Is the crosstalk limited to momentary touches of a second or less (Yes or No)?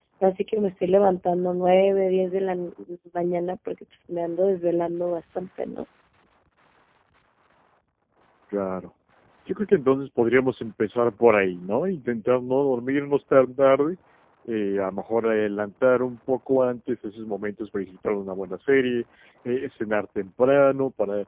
Yes